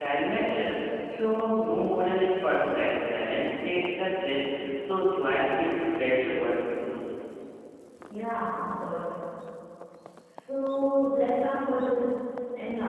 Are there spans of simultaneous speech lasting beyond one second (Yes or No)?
No